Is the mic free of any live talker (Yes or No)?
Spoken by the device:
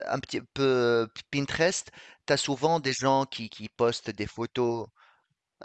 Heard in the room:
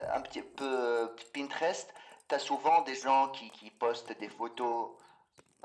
Yes